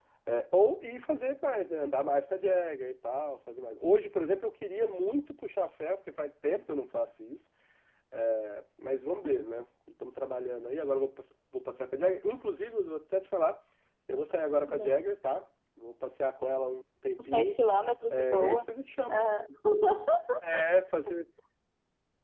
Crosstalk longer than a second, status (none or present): none